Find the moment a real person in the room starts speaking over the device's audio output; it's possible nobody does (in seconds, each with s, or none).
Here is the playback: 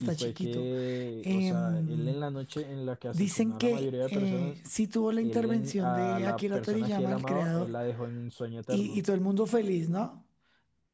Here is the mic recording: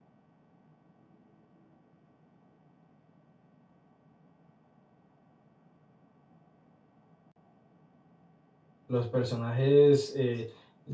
8.9 s